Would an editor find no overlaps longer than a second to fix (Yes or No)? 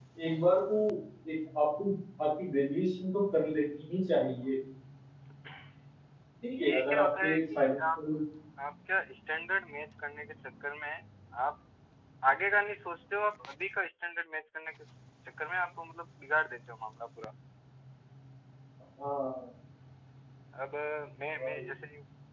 No